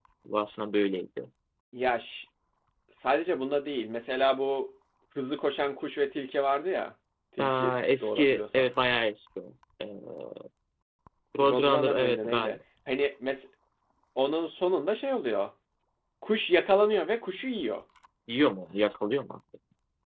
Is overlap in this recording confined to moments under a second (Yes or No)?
No